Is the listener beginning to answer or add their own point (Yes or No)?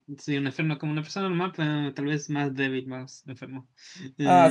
Yes